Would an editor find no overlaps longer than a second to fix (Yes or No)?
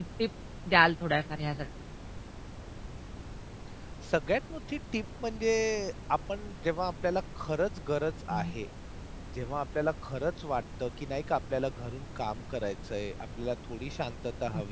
Yes